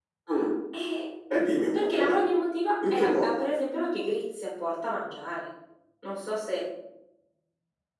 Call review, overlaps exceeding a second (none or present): none